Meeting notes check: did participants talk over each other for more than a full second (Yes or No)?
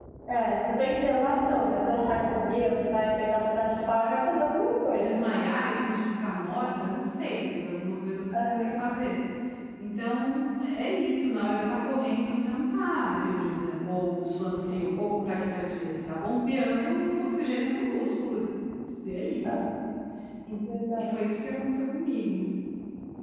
No